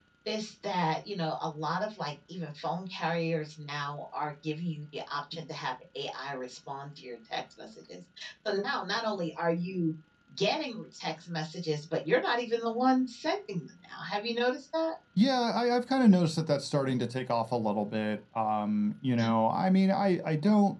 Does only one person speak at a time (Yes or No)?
Yes